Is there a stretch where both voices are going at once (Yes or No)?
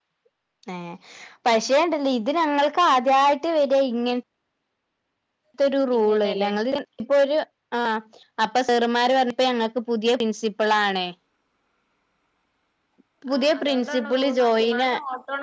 Yes